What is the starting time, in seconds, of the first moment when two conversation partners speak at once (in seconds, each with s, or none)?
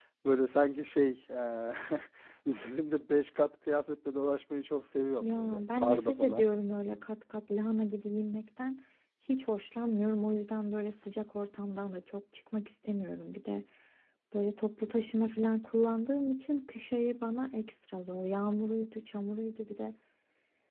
5.2 s